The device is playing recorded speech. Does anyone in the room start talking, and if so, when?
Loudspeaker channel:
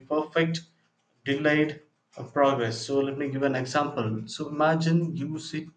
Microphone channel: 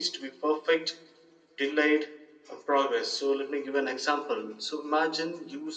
none

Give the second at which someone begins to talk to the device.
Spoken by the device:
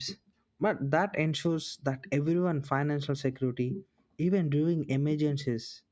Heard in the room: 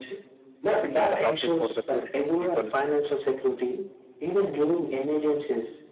1 s

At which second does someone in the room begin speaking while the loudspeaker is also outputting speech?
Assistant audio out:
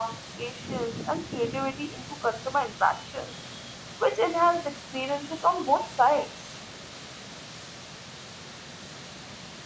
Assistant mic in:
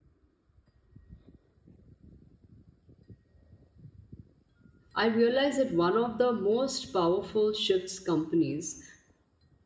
5 s

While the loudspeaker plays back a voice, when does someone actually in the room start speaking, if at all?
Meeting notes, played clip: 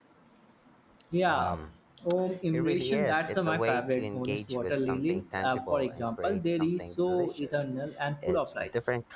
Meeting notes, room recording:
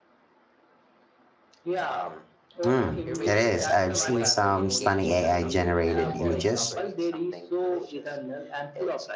3 s

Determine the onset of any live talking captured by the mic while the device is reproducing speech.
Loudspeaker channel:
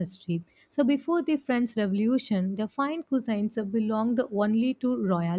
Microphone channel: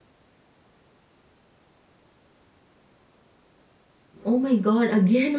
4 s

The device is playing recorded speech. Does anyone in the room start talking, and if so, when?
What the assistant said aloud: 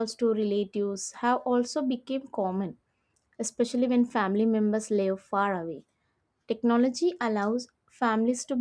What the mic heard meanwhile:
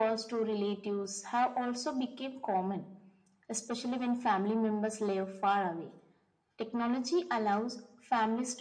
none

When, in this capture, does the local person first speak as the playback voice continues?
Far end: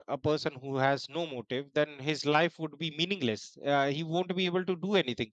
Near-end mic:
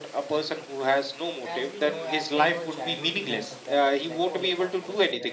1 s

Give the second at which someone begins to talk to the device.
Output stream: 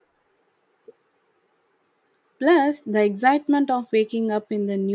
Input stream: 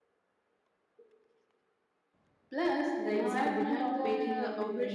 3 s

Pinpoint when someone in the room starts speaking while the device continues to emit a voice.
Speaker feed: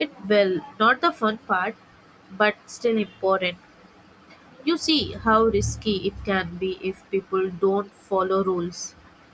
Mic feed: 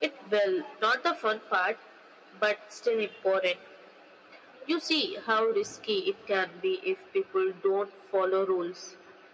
none

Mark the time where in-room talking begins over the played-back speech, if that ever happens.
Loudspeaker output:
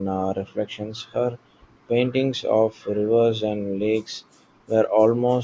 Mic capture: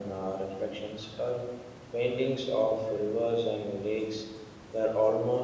none

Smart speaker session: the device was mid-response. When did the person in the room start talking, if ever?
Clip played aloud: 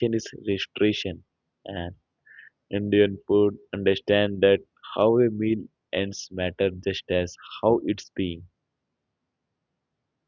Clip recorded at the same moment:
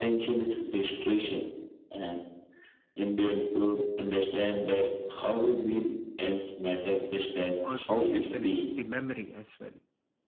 8 s

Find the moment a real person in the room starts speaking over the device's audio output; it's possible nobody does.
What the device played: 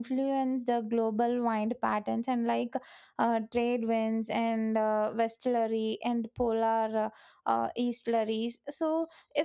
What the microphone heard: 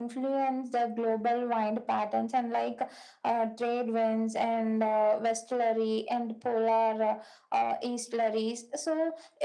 none

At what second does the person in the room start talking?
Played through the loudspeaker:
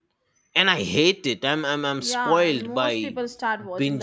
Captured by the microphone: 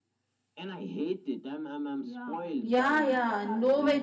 3 s

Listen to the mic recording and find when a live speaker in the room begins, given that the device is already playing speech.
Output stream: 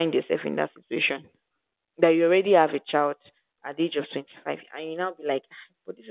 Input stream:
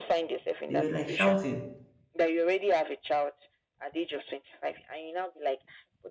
1 s

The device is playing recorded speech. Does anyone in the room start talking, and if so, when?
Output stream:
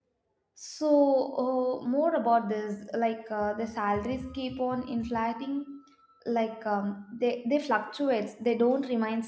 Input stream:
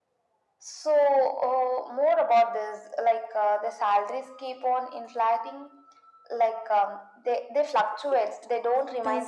8 s

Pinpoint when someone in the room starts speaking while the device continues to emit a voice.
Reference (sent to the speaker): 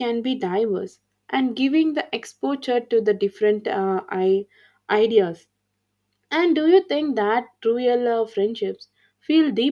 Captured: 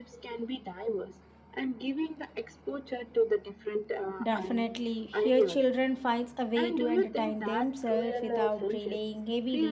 4 s

